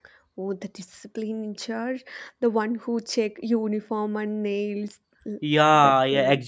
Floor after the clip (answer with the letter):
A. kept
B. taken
B